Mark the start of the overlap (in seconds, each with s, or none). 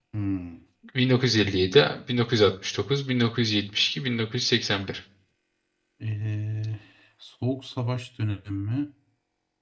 none